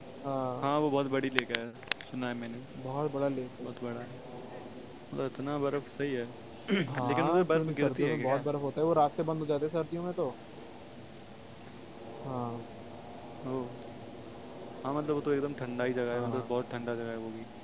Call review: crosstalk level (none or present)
present